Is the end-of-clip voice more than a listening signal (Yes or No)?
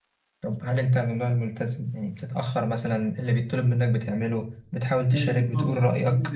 Yes